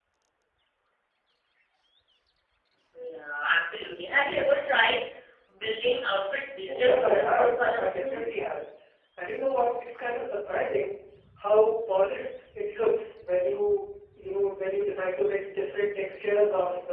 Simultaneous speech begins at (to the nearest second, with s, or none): 7 s